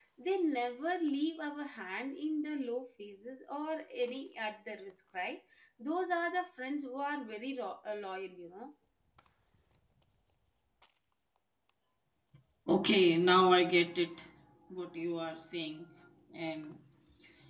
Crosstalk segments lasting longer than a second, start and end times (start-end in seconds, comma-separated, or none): none